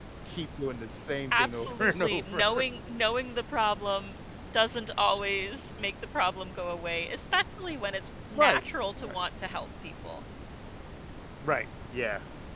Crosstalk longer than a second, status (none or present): present